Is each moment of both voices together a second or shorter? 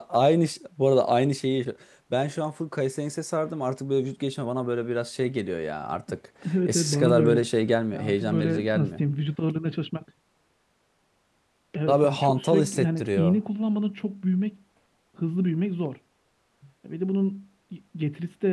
No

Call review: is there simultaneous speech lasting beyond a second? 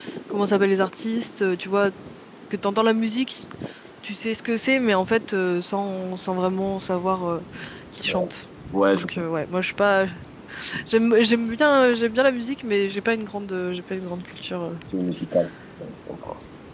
No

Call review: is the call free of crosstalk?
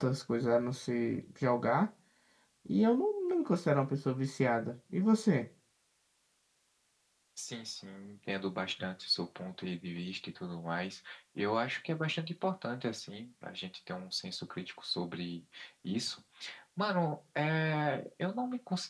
Yes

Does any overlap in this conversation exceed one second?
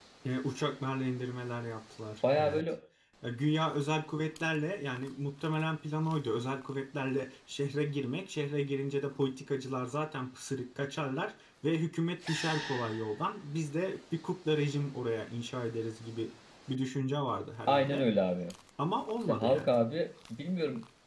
No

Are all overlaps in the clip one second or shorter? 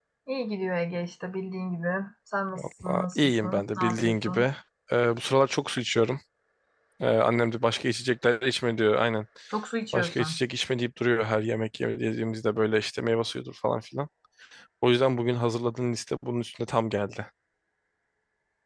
No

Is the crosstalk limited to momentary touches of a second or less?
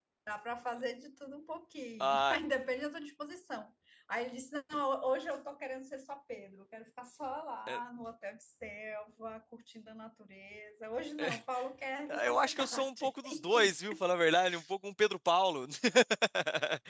No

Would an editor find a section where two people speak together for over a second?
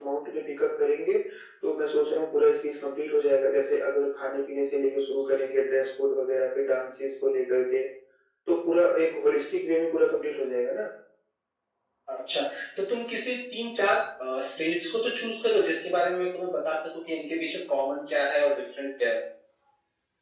No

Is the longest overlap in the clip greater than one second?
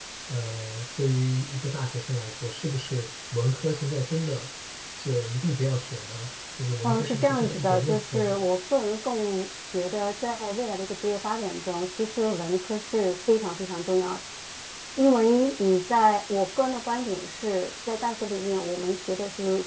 Yes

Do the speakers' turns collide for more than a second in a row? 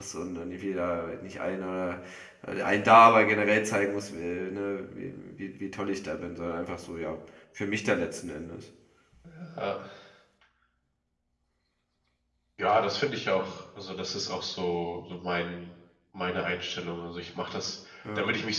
No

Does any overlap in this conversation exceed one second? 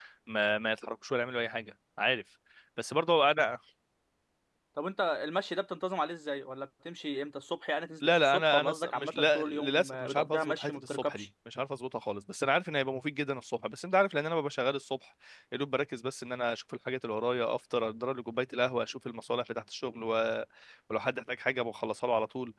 Yes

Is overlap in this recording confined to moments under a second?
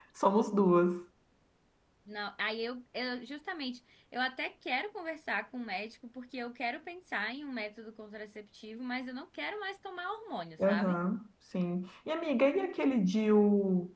Yes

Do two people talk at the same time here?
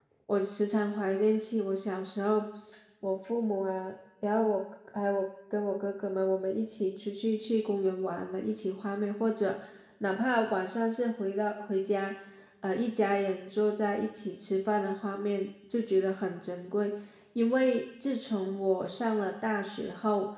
No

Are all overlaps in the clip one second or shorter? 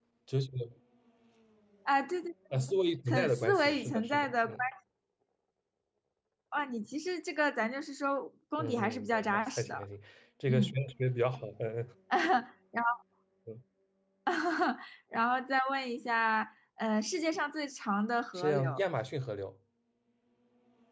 No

